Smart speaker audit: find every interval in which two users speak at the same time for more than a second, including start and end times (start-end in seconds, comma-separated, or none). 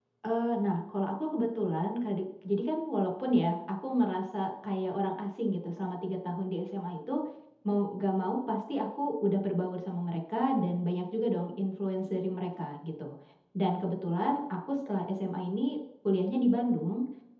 none